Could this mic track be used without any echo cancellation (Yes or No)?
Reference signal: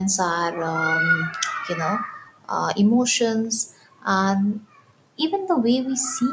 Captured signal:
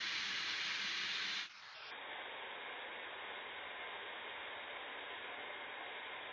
Yes